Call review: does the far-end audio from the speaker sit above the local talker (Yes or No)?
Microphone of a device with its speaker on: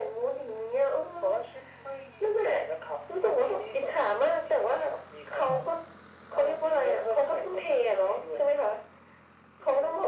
Yes